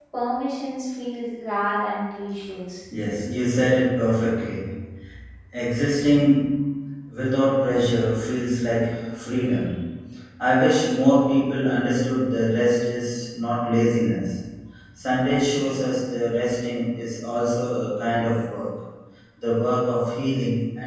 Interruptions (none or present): none